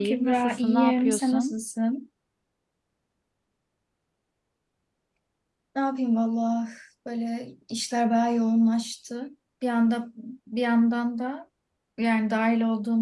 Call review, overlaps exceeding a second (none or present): present